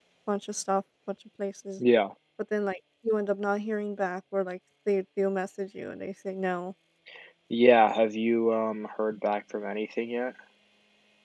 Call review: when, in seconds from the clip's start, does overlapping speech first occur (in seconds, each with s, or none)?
none